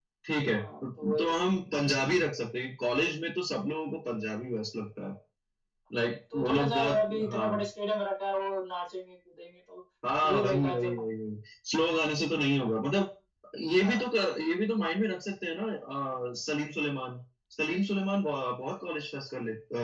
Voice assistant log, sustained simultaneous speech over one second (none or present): present